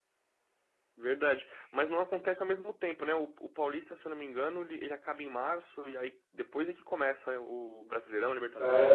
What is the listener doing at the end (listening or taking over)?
taking over